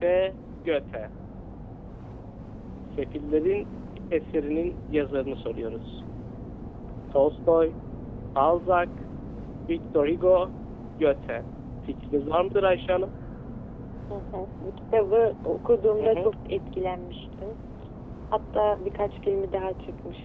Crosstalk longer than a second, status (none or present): none